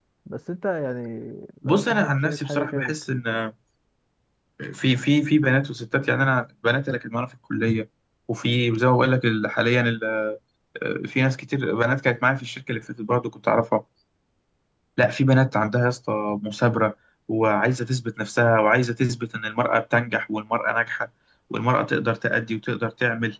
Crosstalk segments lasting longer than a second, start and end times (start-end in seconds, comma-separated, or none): 1.6-2.9